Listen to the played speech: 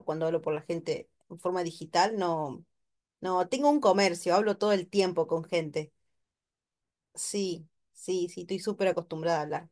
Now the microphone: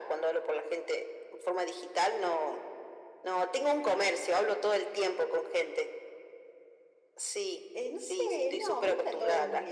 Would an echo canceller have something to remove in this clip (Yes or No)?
Yes